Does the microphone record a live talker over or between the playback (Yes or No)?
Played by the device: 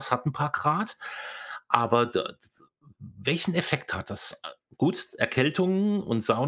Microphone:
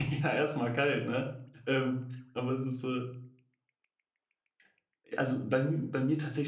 Yes